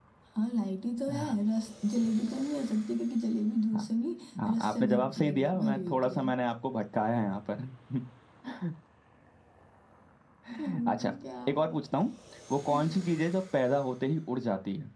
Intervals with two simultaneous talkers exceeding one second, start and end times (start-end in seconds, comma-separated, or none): 4.5-6.3